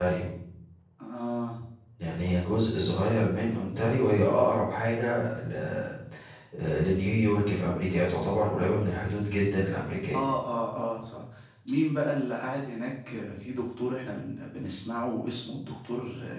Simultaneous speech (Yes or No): No